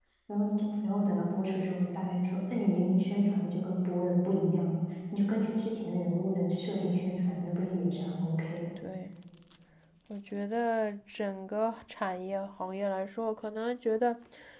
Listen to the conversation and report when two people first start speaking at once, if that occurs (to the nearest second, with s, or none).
none